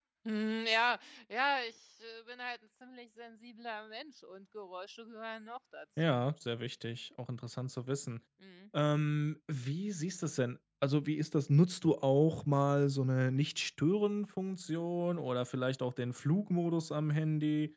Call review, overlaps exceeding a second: none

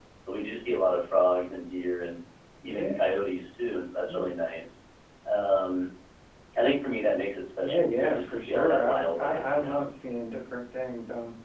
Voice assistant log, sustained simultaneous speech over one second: present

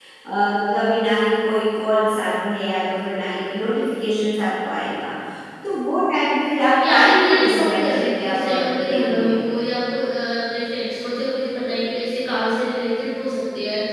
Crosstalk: present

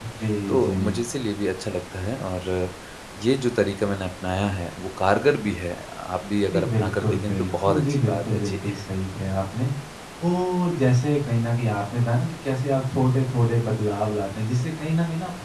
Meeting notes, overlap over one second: present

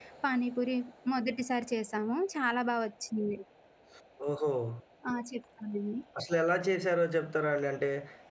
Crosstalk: none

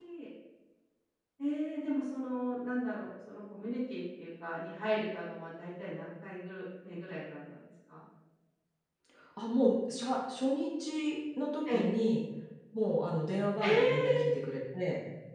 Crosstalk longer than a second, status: none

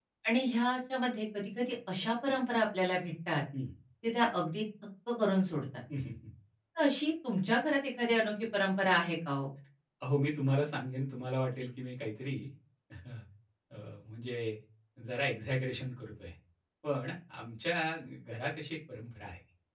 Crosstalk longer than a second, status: none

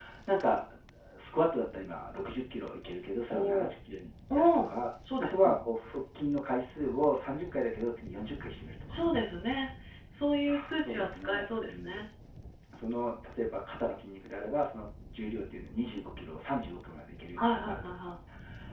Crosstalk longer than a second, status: present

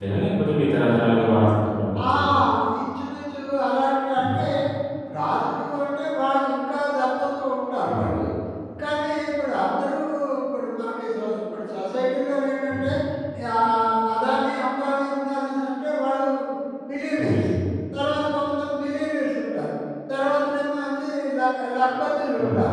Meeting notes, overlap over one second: none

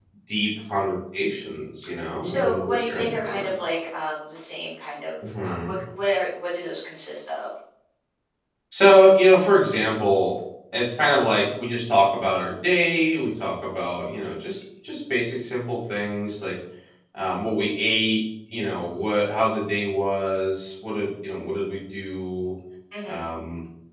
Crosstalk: present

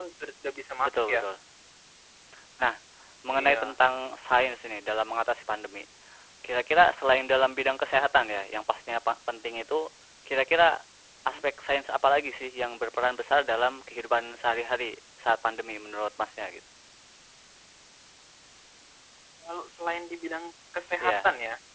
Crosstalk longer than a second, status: none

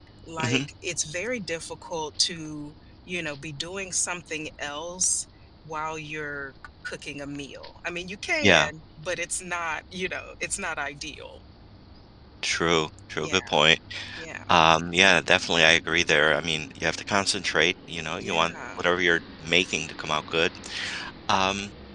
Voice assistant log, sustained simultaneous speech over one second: none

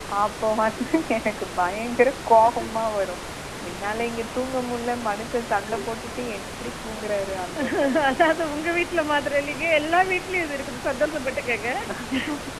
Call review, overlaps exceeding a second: none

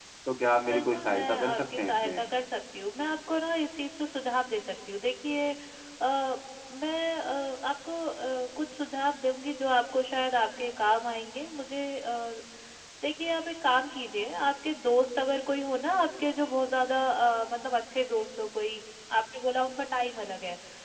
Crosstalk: present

